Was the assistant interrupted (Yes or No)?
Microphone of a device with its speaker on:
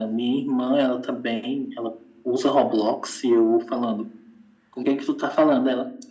No